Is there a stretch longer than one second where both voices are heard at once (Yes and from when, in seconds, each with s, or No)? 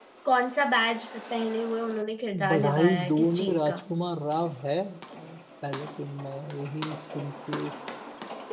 Yes, from 2.3 s